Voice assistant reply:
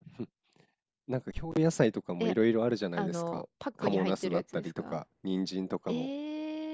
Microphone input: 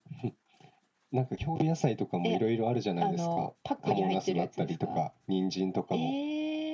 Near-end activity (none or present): none